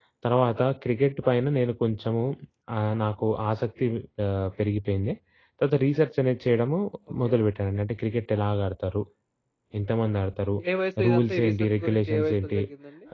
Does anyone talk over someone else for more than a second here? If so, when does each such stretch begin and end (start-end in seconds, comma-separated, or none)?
11.1-12.6